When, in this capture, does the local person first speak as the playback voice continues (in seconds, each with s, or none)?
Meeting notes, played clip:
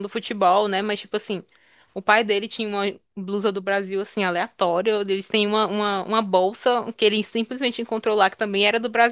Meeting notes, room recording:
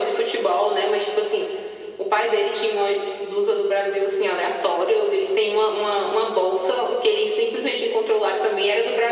none